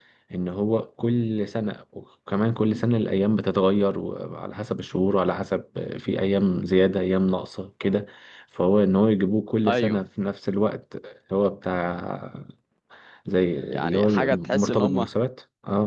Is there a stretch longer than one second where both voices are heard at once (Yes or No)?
Yes